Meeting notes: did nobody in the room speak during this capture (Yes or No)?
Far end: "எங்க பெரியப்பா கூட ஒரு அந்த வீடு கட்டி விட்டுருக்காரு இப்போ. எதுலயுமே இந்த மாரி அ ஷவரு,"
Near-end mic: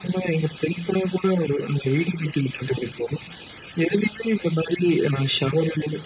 Yes